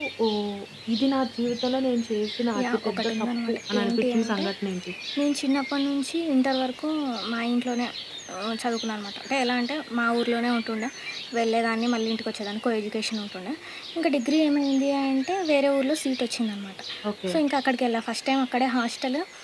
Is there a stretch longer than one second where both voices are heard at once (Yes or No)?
Yes